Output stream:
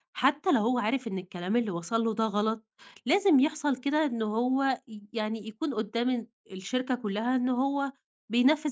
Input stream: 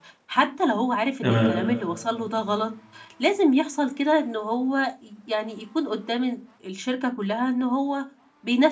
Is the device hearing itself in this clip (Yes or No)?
Yes